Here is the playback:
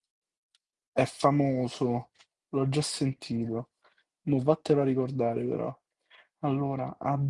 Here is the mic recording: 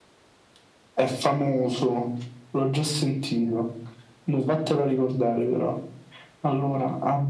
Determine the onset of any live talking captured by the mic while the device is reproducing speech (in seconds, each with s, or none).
none